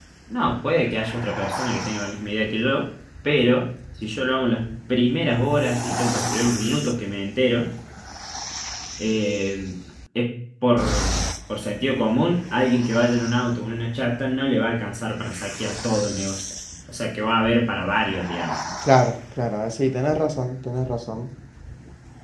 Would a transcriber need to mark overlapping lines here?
No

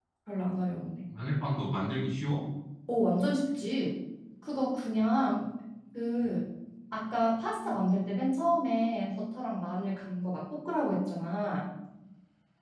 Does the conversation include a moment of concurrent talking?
No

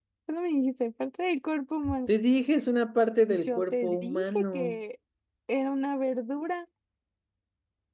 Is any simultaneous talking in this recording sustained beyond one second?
Yes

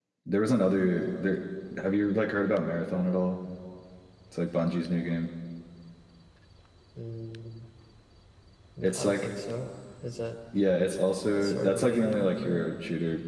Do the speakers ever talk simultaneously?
Yes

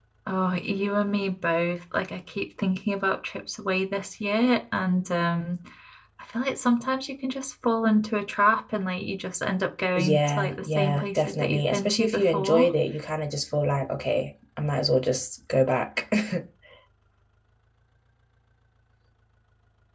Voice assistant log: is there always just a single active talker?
No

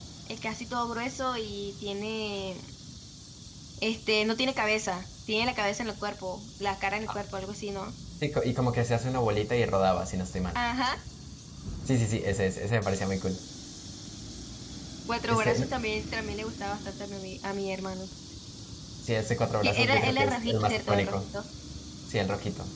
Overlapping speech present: Yes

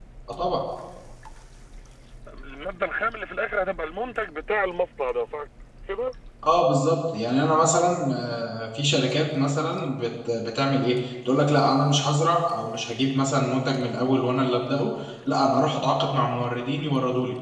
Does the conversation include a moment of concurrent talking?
No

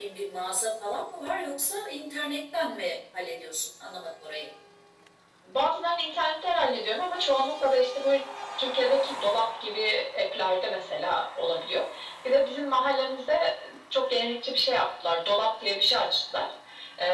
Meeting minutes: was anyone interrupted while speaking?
No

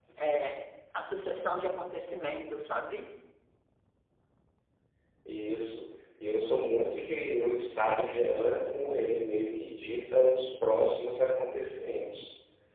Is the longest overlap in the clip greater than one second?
No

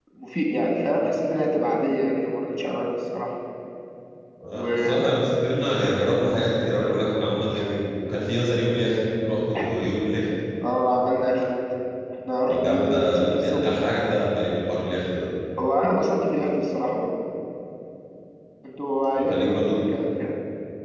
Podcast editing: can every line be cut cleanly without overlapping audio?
No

